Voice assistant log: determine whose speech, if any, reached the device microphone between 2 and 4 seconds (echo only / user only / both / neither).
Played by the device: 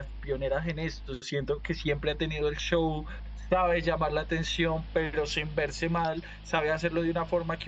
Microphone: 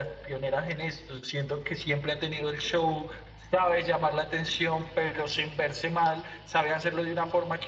echo only